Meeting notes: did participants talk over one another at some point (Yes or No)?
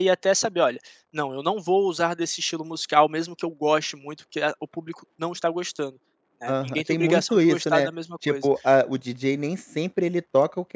Yes